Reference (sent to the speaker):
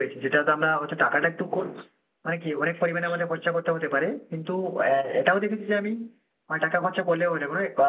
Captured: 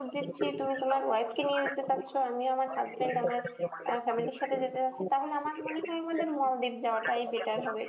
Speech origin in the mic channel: both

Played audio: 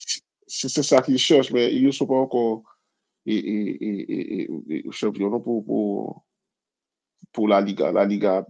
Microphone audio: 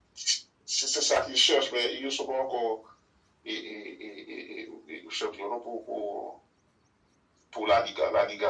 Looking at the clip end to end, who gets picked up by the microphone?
echo only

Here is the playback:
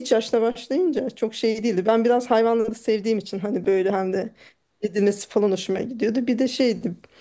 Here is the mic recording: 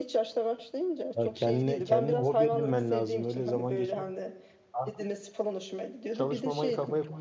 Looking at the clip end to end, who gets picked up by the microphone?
both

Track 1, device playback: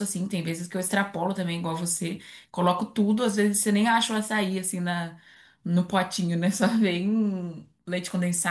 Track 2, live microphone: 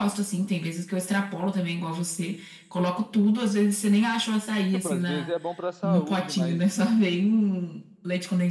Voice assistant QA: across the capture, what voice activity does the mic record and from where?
both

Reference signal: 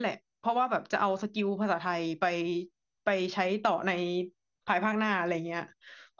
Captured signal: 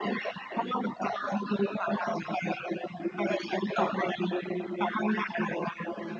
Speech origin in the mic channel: echo only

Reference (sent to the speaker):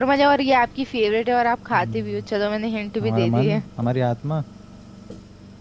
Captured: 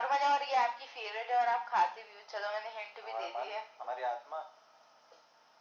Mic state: echo only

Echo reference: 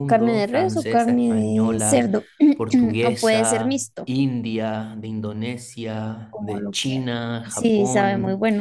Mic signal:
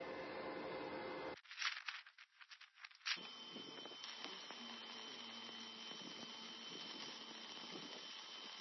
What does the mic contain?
neither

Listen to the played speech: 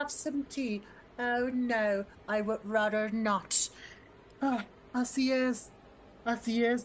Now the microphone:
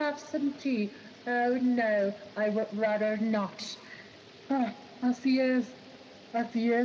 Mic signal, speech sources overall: echo only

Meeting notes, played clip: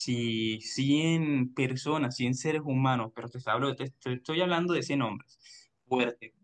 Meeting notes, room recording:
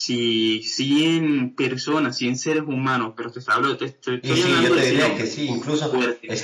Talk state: both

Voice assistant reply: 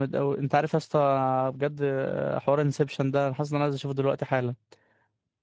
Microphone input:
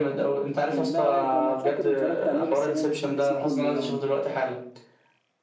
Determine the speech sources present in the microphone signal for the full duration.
both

